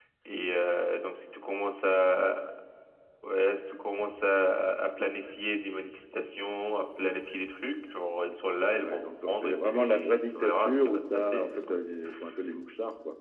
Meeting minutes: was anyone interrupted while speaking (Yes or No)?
Yes